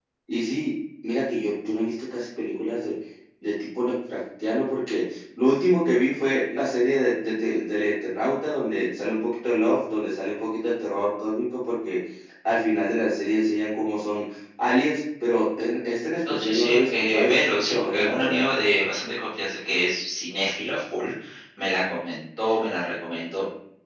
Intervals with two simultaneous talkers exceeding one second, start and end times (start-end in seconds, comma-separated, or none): 16.3-18.4